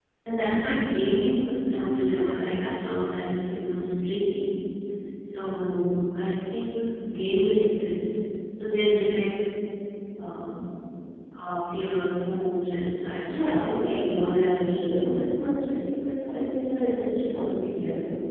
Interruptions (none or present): present